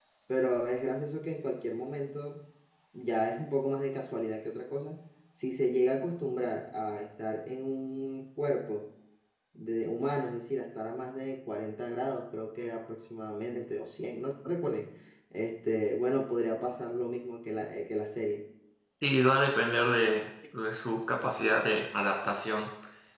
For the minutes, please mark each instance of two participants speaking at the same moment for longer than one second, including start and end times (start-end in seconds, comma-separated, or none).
none